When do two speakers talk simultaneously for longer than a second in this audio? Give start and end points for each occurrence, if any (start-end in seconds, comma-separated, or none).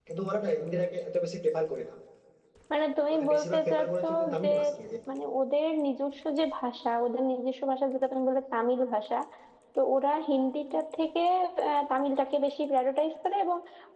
3.1-4.5